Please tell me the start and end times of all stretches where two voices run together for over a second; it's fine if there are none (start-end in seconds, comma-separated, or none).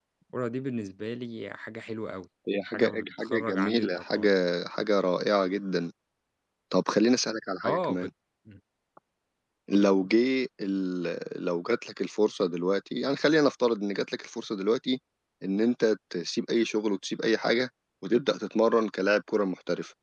2.6-4.3